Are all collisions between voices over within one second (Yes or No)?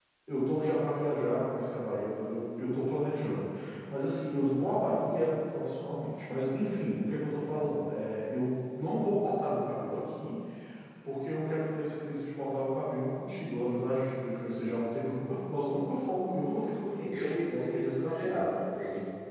No